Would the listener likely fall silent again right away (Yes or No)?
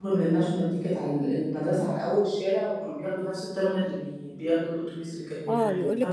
No